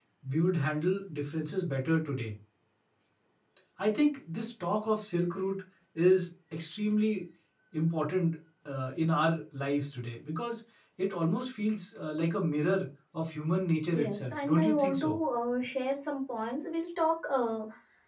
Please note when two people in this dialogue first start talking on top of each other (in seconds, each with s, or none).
13.9 s